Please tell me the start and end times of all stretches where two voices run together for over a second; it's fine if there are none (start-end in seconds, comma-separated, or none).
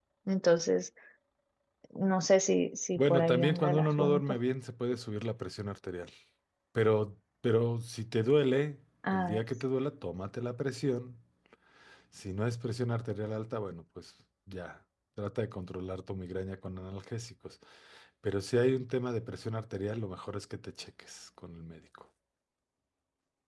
3.0-4.4